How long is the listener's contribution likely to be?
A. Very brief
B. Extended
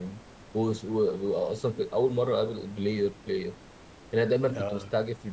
A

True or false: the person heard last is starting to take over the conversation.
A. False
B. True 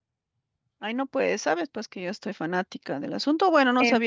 A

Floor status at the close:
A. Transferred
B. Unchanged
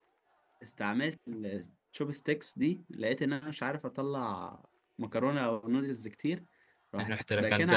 B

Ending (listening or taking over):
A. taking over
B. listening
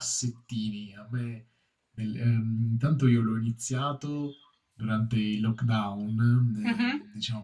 B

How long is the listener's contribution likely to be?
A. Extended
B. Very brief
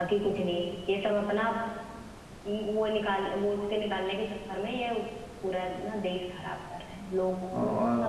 A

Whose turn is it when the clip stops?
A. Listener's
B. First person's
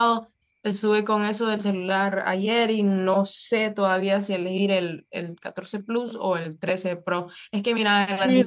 A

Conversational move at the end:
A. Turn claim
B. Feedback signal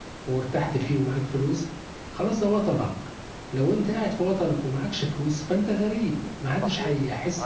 A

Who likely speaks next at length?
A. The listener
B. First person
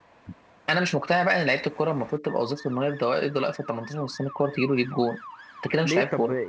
A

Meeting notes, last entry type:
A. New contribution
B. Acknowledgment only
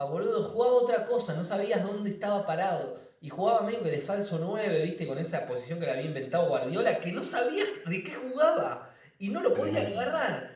B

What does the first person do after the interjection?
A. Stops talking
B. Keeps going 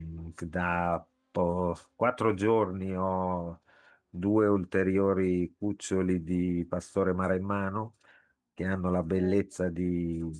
B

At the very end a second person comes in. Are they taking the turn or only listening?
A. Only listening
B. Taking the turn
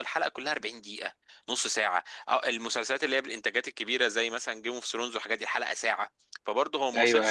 A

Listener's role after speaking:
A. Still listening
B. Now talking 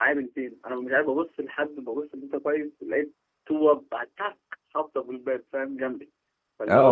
B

